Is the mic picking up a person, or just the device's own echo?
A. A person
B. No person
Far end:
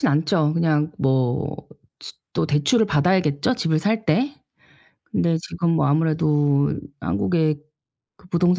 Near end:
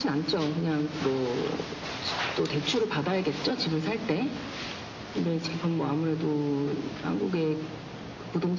B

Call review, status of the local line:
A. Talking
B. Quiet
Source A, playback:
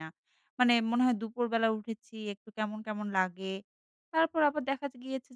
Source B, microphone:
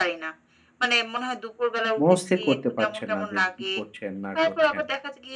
A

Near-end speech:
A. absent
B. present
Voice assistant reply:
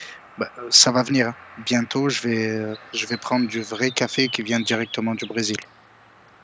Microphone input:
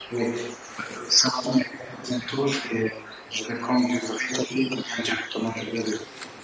A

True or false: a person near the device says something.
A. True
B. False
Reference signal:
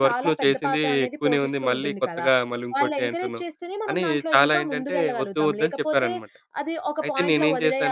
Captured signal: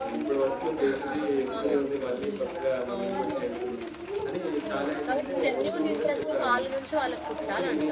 A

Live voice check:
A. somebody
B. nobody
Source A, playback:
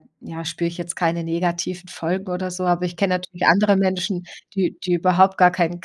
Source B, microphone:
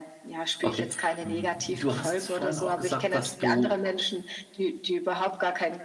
A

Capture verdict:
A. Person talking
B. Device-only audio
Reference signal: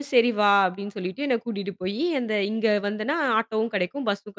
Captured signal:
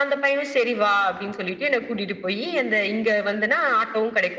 B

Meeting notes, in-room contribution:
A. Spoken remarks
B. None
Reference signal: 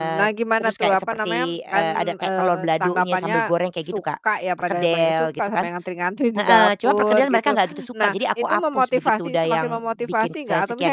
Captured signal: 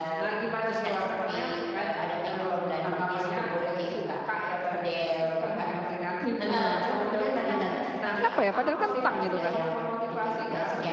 A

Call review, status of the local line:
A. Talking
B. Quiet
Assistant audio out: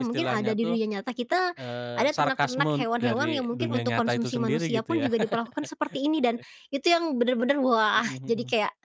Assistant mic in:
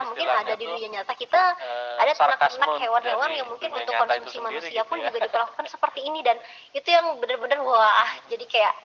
B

